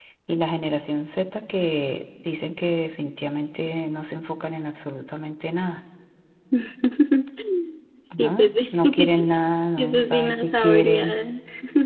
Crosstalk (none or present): present